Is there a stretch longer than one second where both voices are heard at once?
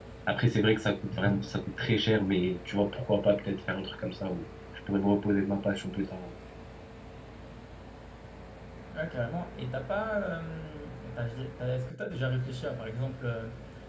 No

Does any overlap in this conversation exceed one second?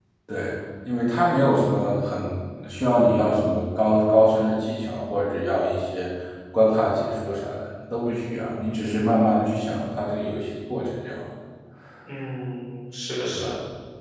No

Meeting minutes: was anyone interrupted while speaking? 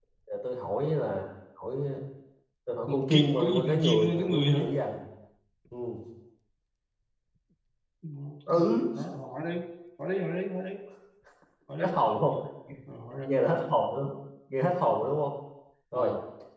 Yes, from 2.9 s

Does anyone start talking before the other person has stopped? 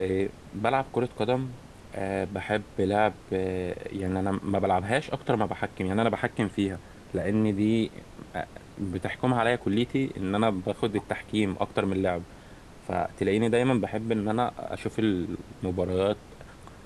No

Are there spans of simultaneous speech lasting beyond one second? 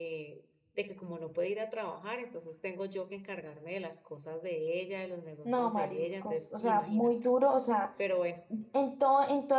Yes, from 5.4 s

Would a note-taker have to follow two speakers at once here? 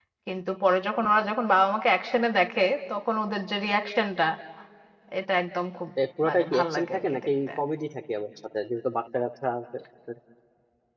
Yes, from 6.3 s

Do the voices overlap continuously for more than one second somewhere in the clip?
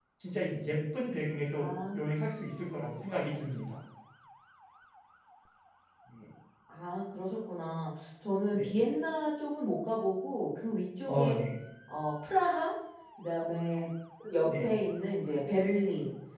No

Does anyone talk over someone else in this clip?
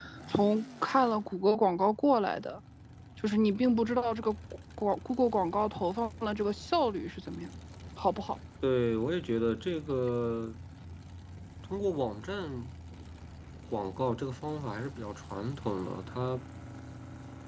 No

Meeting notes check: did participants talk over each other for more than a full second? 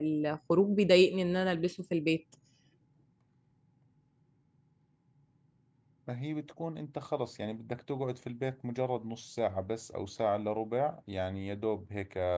No

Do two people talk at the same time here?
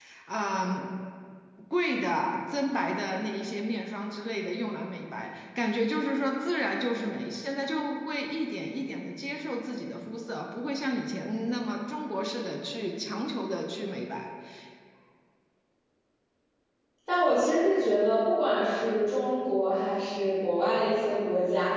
No

